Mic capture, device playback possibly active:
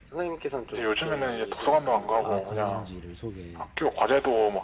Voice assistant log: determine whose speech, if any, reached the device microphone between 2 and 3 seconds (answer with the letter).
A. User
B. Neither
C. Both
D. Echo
C